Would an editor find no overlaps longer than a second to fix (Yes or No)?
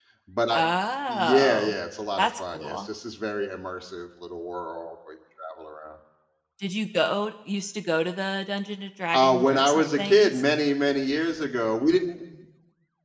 No